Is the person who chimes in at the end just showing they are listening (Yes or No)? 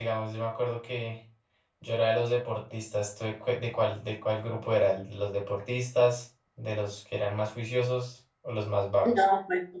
No